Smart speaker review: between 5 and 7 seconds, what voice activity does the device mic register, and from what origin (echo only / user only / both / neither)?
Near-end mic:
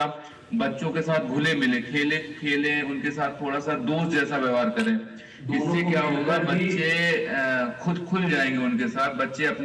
both